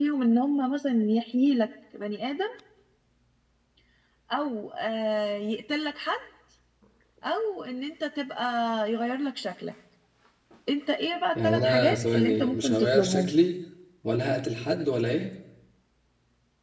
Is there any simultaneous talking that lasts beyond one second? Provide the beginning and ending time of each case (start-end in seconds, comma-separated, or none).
11.3-13.3